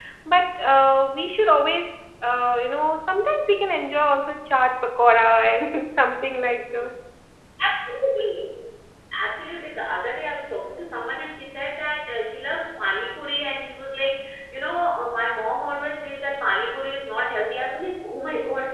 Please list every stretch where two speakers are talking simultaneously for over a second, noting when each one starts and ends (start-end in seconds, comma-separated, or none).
none